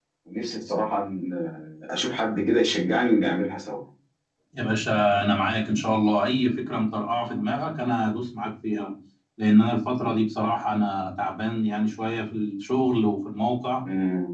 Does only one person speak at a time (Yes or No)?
Yes